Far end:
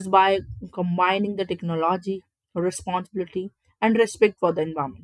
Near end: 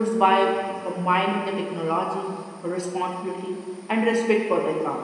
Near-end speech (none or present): none